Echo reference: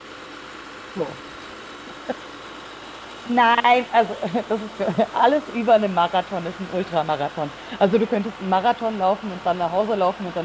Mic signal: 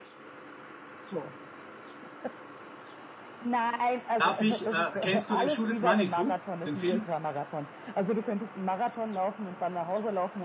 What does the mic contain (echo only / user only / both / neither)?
both